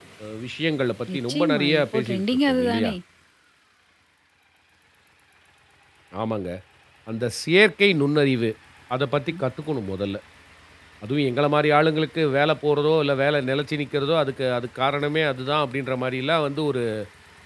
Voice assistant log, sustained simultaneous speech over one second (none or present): present